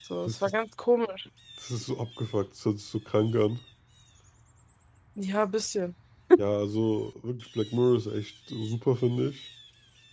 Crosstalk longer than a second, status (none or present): none